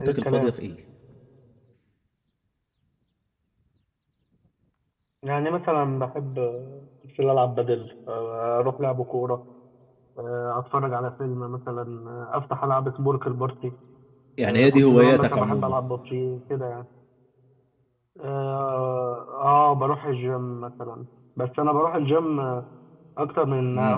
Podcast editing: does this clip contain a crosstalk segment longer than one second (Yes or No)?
Yes